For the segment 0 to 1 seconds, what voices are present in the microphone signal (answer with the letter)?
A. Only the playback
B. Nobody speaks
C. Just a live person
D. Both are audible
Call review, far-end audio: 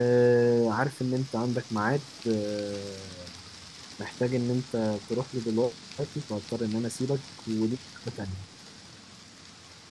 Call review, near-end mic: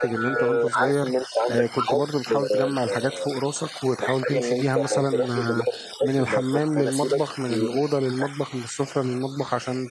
D